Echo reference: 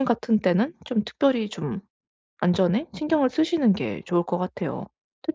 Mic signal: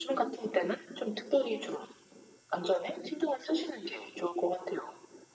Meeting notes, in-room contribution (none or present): none